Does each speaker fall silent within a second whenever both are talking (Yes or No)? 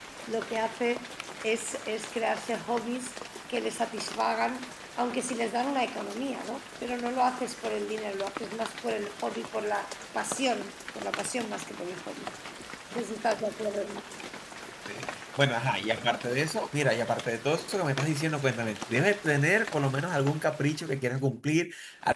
Yes